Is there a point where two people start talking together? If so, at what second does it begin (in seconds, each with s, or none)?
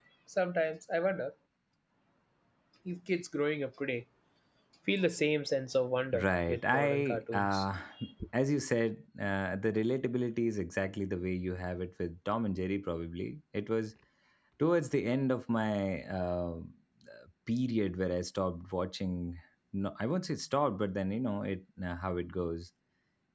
6.1 s